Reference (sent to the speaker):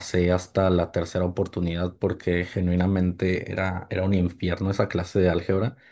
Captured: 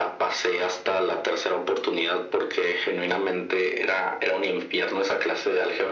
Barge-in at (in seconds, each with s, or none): none